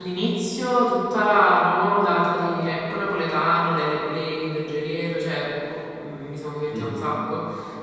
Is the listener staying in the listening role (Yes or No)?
Yes